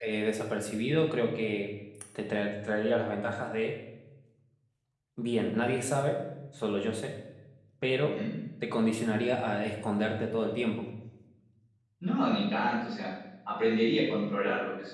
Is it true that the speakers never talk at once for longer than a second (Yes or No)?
Yes